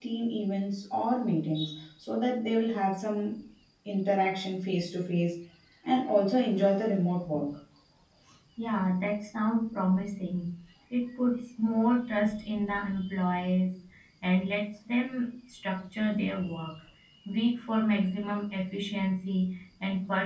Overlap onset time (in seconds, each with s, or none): none